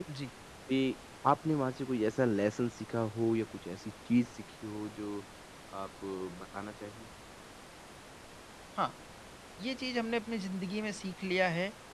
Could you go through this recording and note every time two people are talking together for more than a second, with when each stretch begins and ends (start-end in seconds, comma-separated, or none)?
none